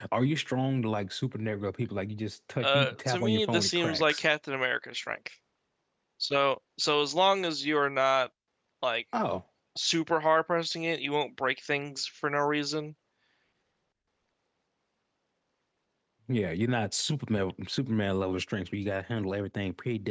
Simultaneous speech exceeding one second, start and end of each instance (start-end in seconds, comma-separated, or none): 2.6-4.2